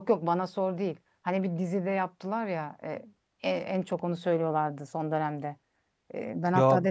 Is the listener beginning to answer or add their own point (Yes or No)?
No